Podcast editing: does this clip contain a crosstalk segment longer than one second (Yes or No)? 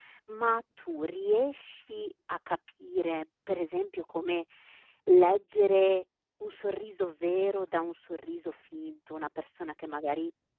No